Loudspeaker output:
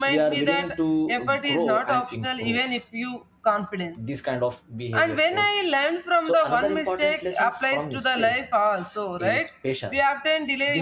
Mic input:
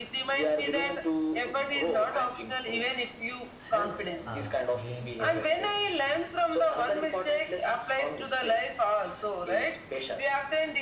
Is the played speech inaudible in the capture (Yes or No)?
No